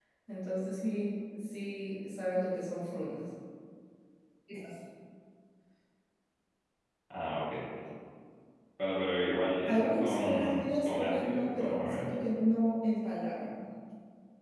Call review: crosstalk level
present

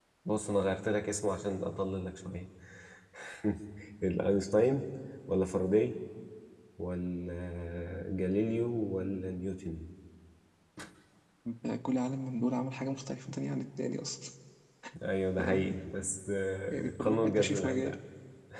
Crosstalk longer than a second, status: present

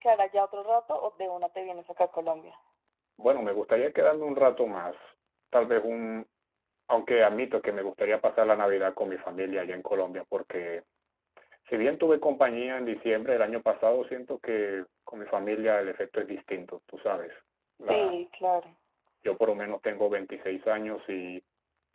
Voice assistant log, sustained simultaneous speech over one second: none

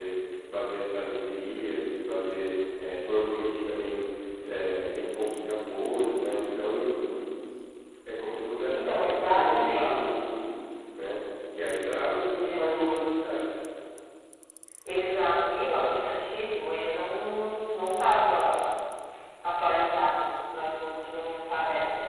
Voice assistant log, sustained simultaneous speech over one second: present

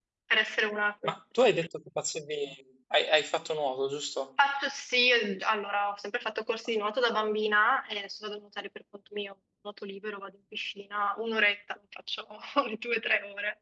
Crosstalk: none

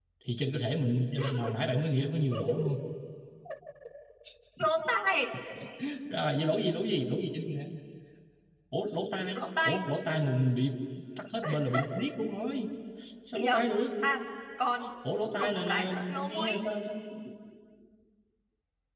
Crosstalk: present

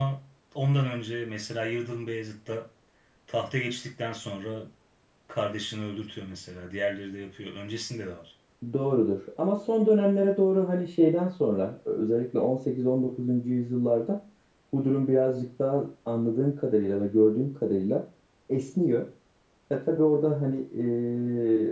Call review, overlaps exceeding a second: none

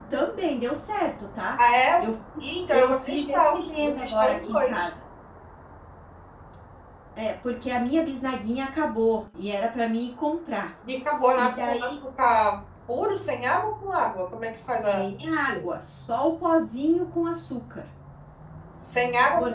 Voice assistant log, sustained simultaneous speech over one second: present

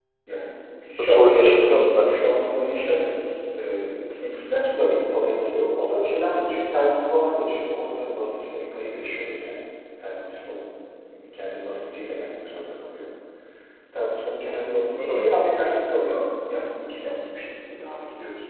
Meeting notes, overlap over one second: present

